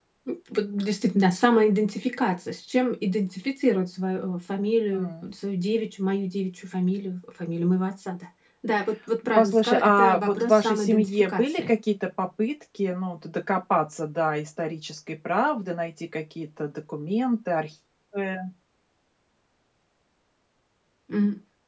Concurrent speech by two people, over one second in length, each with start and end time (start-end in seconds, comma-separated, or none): 9.3-11.7